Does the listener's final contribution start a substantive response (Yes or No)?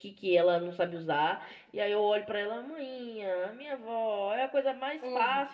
No